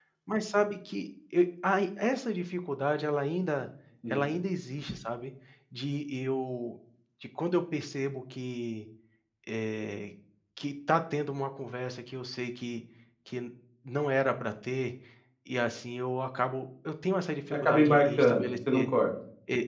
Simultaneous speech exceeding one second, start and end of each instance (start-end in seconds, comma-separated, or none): 17.5-18.9